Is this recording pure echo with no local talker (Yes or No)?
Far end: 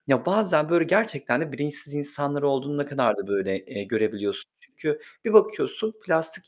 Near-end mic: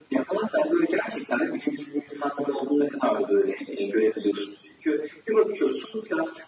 Yes